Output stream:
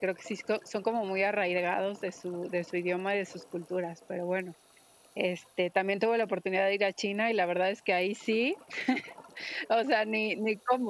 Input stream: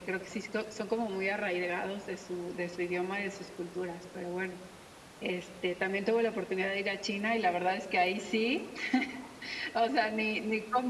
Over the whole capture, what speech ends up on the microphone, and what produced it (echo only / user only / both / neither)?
echo only